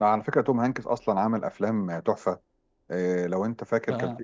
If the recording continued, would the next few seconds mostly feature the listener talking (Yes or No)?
No